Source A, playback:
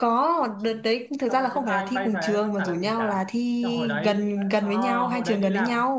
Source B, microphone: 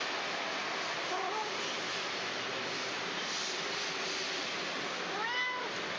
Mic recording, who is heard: neither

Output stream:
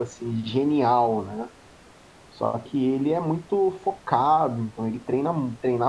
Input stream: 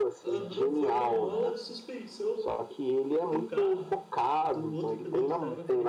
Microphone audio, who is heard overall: both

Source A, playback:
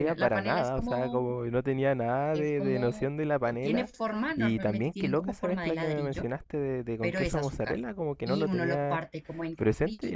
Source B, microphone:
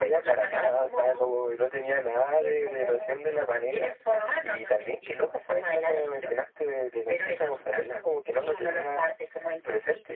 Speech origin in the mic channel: echo only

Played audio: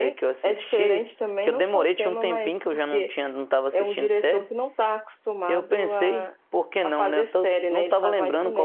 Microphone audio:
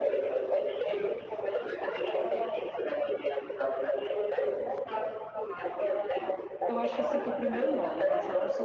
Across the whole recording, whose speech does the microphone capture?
both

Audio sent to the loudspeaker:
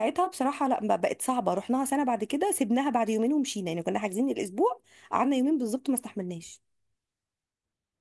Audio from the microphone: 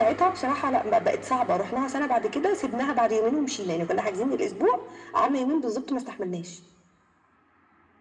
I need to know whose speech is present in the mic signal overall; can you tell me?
echo only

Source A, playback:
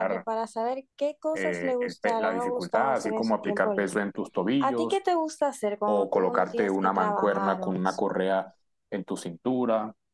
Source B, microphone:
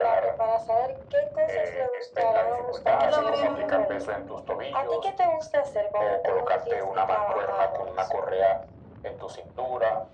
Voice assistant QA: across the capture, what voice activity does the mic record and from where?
both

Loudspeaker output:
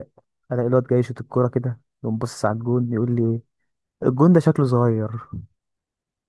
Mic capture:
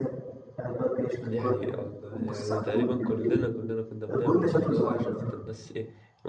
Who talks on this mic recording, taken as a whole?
both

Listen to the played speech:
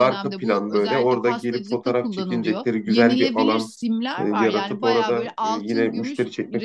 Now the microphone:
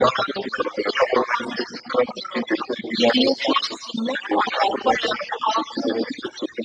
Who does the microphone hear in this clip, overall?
echo only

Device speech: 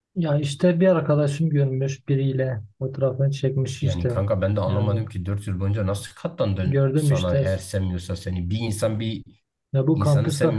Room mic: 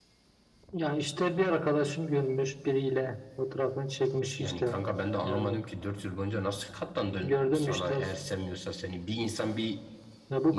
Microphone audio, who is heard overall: echo only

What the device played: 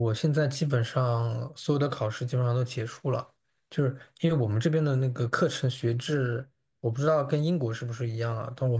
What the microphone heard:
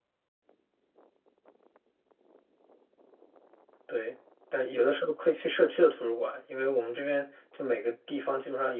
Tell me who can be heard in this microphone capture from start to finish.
user only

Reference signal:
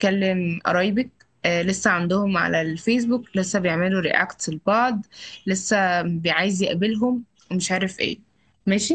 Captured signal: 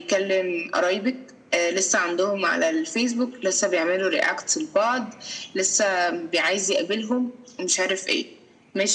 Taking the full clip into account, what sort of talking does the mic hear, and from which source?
echo only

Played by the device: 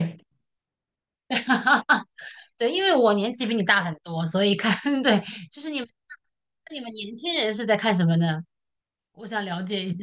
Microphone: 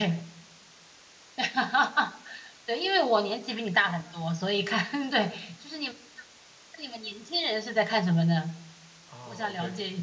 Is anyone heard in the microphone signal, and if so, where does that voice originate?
both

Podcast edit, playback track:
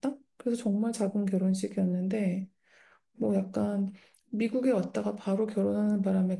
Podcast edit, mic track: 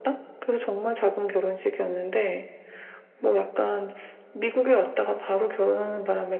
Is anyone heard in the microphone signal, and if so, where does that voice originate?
echo only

